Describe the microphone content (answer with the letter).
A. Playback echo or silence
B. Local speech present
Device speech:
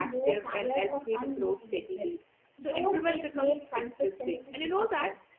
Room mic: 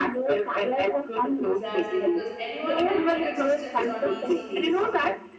B